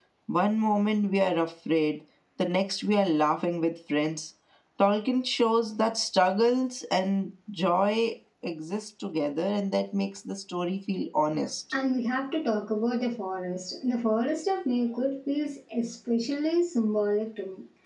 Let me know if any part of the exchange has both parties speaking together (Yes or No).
No